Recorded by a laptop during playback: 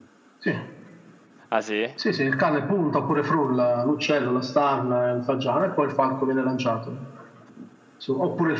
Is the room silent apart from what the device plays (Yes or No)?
No